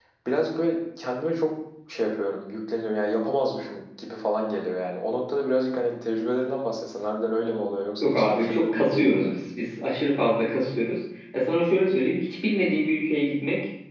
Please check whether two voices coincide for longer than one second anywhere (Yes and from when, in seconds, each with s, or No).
Yes, from 8.0 s